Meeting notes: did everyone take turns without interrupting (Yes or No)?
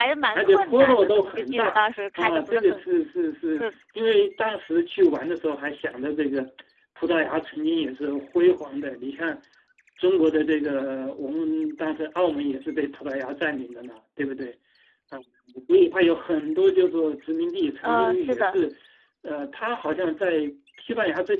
No